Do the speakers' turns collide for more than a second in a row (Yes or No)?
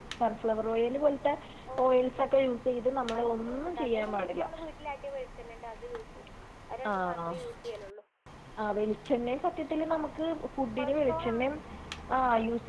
Yes